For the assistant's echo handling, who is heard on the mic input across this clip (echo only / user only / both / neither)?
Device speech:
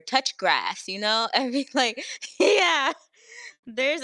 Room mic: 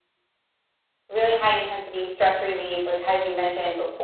user only